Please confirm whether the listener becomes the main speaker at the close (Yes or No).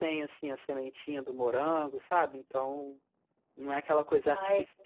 No